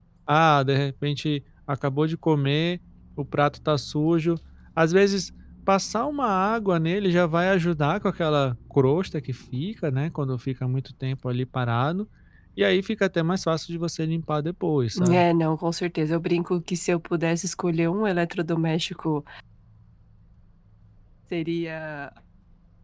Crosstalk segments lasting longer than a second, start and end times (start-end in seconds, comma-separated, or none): none